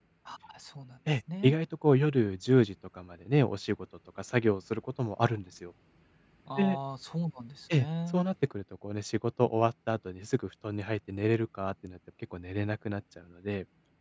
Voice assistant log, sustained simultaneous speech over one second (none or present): none